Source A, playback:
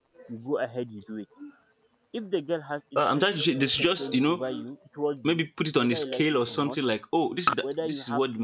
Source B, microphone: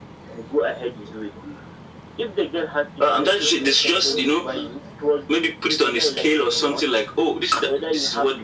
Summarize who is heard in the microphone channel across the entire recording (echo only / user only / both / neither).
echo only